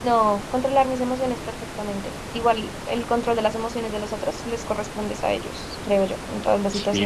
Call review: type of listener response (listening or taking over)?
taking over